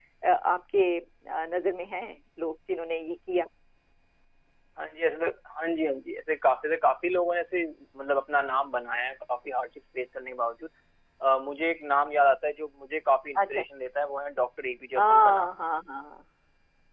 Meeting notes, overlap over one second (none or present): none